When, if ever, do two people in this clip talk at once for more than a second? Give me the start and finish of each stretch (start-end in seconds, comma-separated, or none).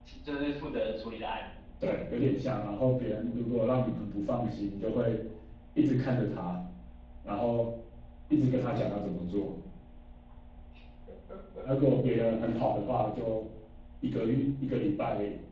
none